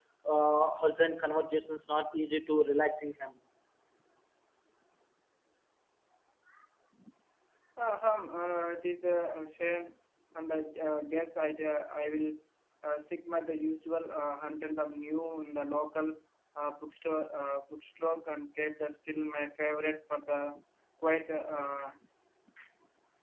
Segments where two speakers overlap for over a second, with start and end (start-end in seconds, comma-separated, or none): none